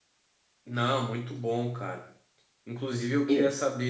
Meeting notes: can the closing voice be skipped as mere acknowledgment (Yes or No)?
Yes